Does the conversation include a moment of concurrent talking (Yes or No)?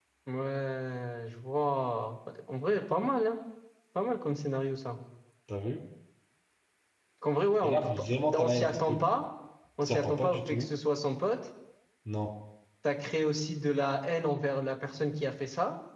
Yes